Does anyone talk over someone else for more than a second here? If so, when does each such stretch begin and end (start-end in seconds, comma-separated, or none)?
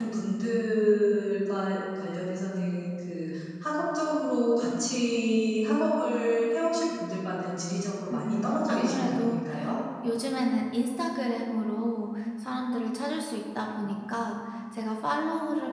8.1-9.4